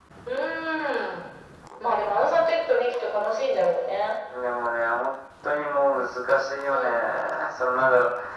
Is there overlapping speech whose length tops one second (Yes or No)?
No